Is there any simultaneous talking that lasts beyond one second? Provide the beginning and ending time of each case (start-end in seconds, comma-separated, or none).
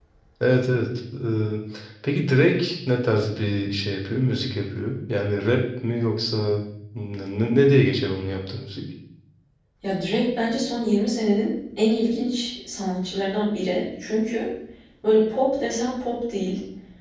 none